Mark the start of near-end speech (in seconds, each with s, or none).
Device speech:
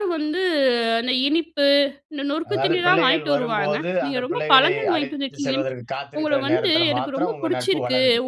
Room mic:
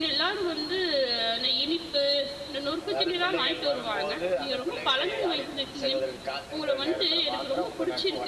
none